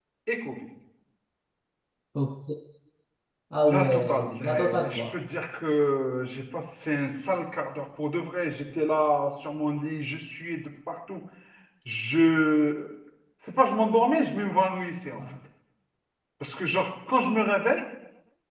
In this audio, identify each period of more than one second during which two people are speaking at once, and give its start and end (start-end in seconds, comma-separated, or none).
3.6-5.1